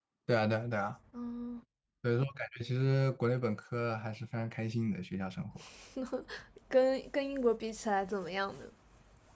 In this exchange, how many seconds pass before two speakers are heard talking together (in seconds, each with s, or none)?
none